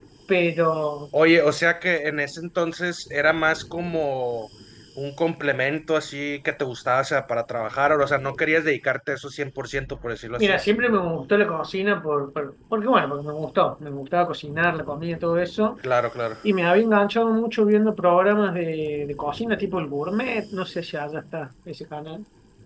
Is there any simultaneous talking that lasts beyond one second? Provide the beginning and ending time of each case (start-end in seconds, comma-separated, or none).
none